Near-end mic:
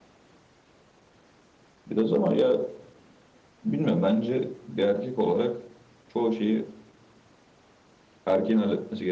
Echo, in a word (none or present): none